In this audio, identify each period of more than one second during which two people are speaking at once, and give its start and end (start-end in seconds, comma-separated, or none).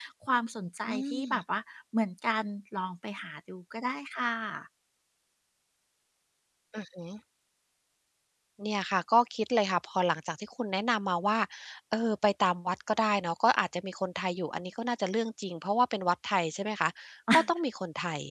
none